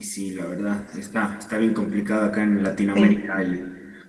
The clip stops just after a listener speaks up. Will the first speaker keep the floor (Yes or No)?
Yes